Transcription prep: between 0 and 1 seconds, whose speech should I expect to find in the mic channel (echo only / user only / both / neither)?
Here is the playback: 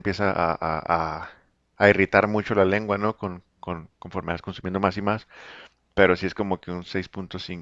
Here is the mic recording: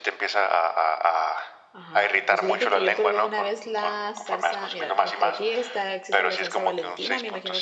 echo only